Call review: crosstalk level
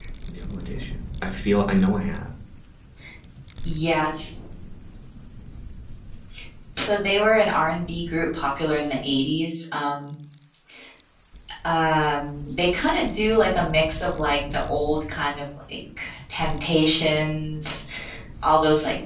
none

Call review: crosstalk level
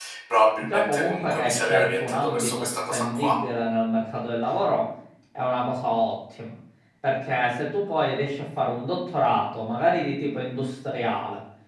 present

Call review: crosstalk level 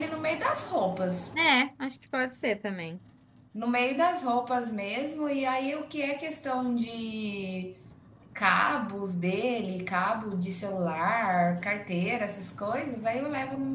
none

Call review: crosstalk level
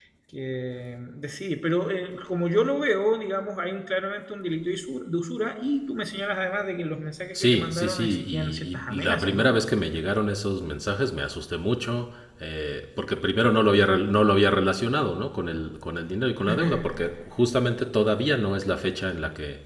present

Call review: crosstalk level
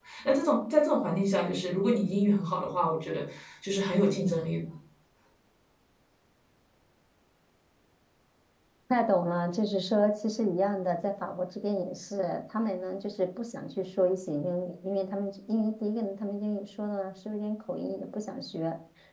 none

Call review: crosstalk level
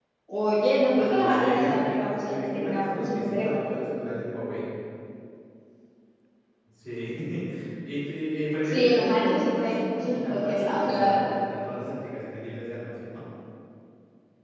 present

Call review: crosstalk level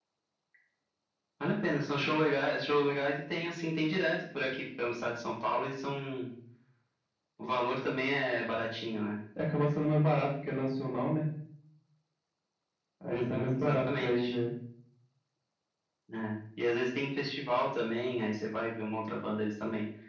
present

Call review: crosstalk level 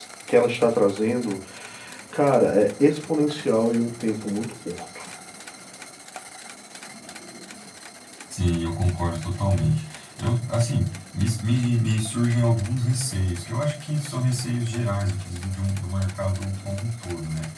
none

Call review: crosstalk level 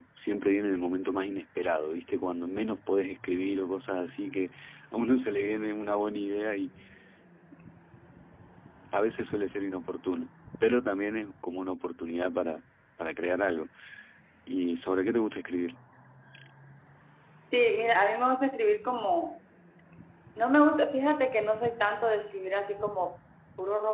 none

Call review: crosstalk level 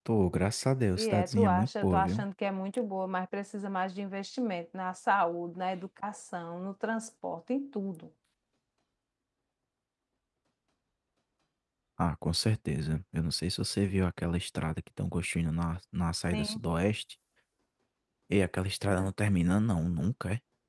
present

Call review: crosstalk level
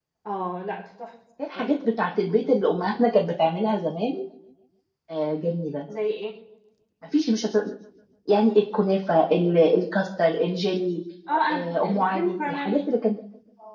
present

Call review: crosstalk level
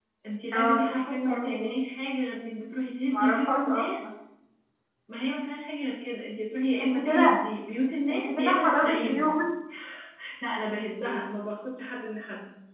present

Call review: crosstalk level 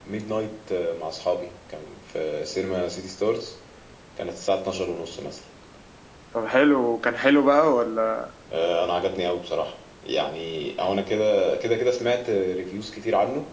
none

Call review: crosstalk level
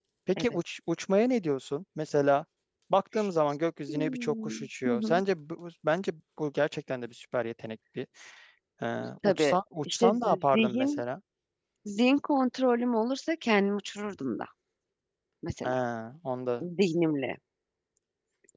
present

